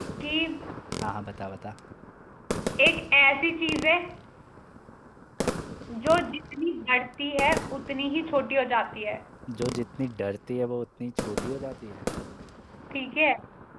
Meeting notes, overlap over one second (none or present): none